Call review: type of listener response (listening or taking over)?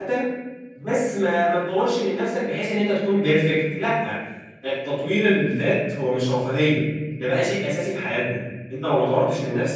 listening